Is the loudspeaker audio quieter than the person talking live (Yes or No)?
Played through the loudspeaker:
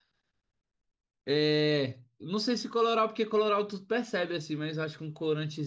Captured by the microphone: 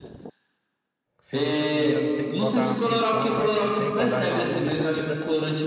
No